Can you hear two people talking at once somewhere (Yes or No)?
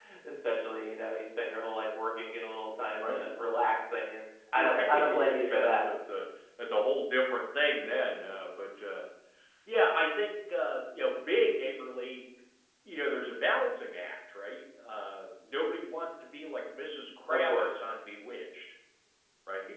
Yes